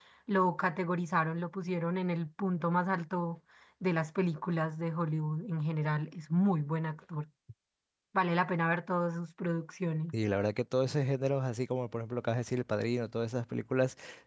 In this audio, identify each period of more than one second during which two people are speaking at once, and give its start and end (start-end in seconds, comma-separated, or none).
none